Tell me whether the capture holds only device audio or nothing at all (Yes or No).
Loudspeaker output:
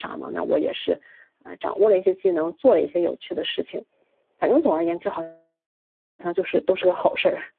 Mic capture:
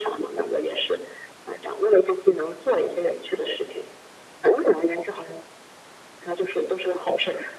Yes